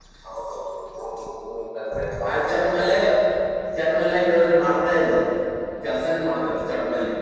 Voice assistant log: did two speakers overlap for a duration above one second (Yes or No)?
No